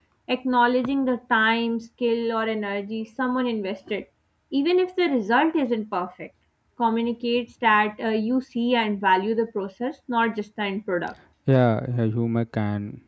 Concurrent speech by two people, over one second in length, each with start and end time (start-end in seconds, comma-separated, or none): none